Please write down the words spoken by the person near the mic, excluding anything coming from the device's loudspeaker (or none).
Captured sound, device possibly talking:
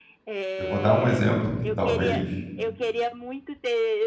eu vou dar um exemplo que talvez